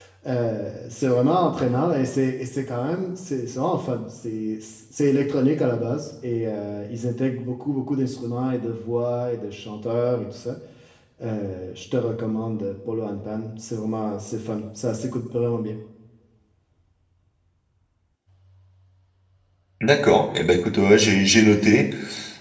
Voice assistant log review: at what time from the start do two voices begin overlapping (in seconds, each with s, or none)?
none